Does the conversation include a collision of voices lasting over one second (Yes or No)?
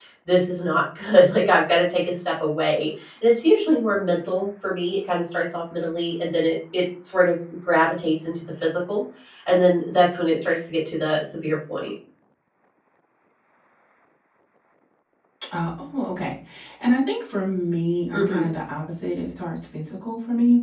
No